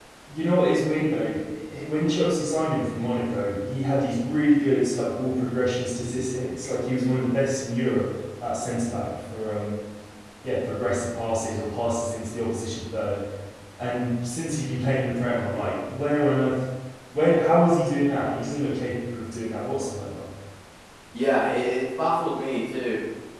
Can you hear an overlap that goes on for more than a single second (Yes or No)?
No